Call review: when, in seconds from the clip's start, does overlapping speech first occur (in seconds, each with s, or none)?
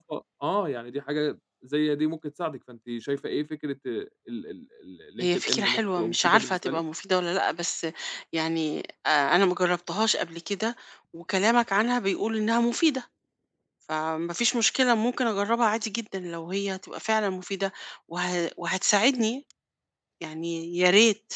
5.2 s